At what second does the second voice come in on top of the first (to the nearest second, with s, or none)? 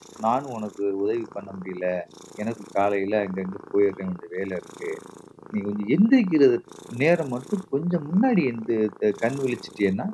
none